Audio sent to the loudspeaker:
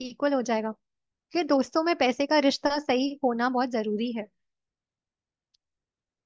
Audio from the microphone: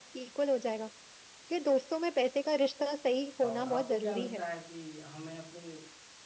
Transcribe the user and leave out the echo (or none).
और आपको क्या लगता है कि हमें अपने